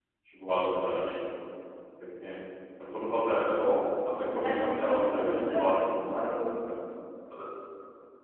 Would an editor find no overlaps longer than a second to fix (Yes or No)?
No